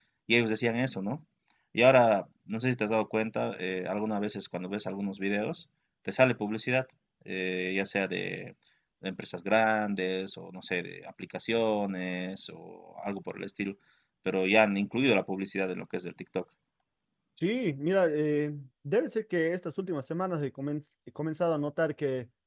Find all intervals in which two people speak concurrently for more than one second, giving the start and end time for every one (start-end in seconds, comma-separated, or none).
none